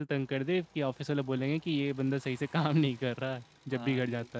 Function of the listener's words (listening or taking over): taking over